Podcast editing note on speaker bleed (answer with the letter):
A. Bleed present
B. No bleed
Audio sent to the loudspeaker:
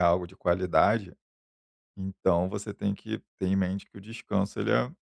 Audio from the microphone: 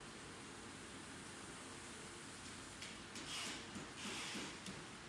B